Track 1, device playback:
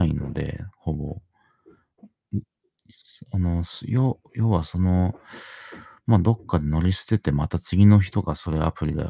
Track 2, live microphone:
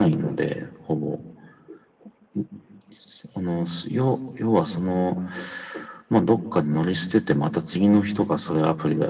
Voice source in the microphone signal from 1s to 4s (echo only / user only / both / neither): echo only